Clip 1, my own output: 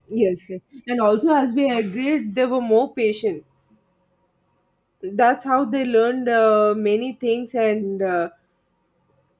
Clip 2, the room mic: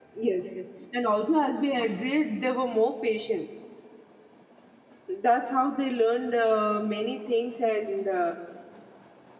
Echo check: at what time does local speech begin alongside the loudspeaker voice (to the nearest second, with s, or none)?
none